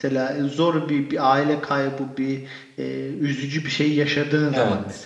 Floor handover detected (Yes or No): Yes